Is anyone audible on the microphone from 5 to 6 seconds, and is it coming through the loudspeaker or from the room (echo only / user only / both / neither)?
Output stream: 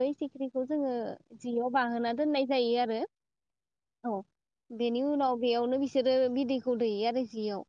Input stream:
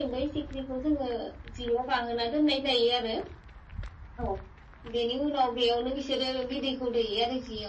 echo only